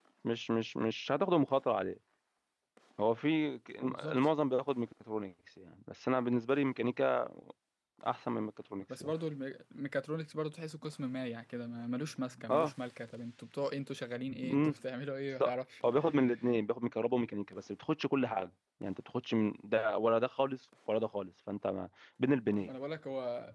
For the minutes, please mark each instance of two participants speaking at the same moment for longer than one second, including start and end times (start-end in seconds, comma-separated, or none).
none